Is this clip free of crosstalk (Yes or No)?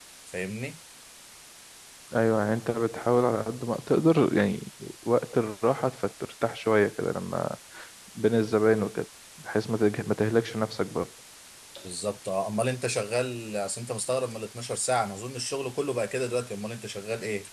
Yes